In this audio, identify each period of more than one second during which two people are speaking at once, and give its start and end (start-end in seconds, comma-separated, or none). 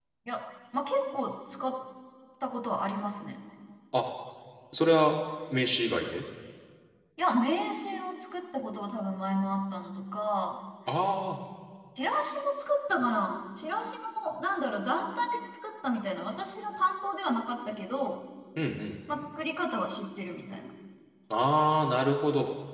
none